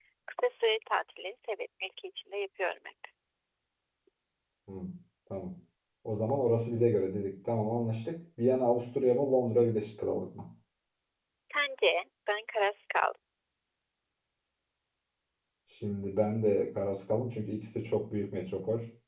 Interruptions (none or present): none